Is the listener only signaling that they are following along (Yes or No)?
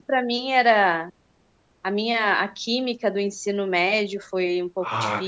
No